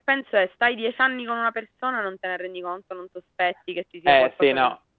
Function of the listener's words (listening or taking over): taking over